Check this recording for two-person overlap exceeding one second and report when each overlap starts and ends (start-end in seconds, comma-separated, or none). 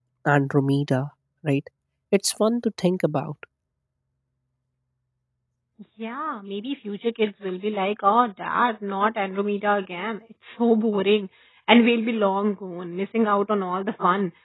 none